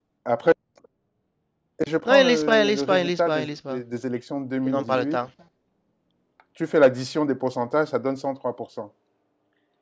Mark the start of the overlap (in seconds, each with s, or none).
2.0 s